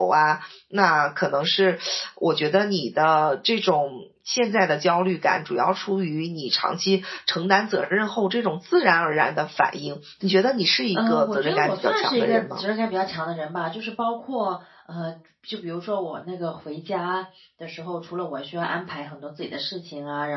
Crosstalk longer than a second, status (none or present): present